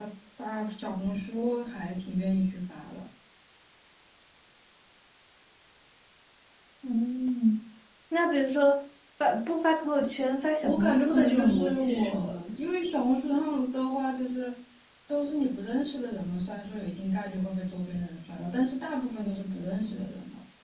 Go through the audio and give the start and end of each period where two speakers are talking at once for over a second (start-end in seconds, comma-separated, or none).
10.6-12.5